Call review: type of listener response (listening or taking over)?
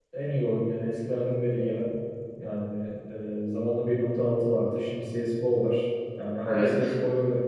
listening